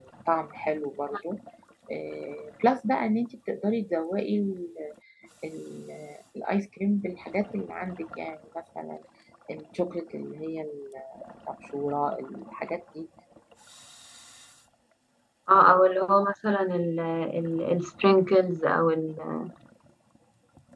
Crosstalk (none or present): none